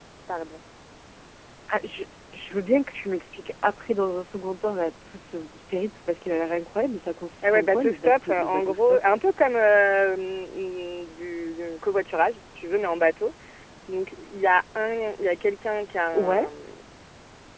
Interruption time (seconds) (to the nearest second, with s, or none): 7 s